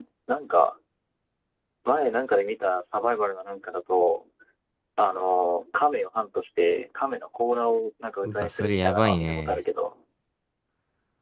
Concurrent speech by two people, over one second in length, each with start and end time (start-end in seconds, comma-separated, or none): 8.2-9.6